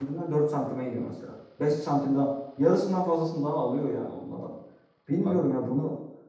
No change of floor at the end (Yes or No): Yes